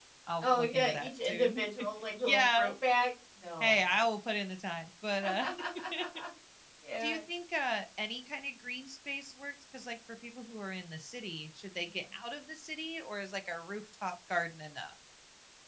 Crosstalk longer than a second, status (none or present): present